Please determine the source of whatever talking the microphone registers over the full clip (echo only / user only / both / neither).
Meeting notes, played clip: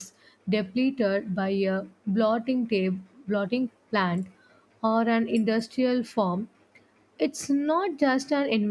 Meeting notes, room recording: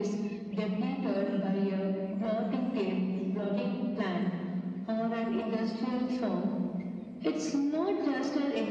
echo only